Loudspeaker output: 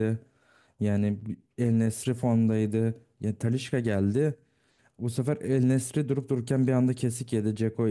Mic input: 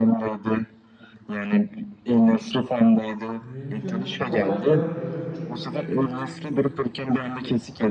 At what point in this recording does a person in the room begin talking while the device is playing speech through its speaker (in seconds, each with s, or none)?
3.4 s